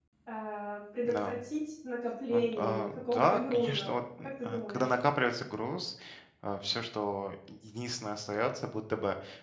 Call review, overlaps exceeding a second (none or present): present